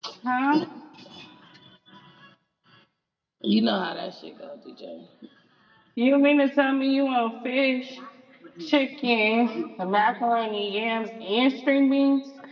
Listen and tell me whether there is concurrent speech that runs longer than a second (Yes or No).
No